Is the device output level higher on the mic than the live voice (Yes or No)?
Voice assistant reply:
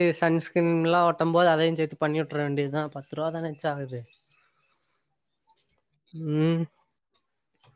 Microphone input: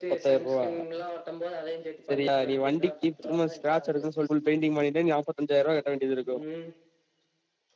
No